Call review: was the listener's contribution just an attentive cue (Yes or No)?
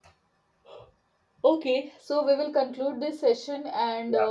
Yes